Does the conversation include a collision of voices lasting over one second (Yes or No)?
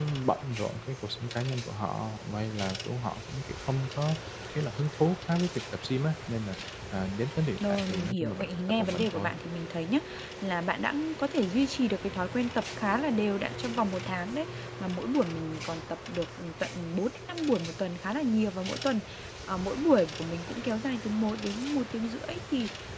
Yes